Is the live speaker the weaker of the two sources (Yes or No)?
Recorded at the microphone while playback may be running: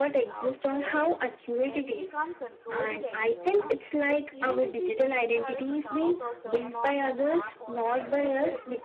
Yes